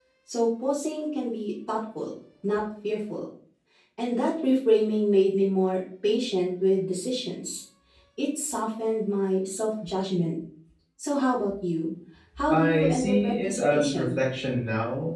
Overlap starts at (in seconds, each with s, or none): 12.5 s